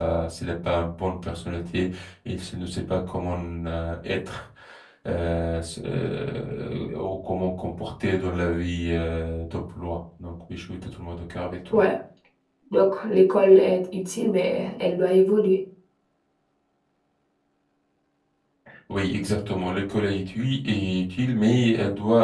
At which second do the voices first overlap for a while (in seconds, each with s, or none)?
none